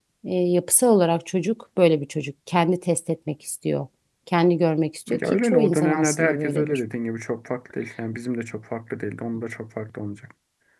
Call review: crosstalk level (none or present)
present